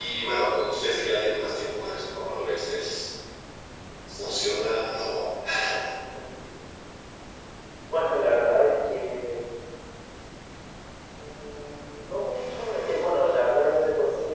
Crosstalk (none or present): none